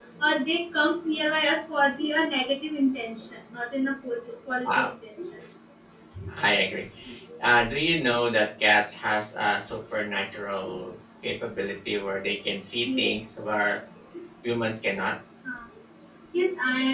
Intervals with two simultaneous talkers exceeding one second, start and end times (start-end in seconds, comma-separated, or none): none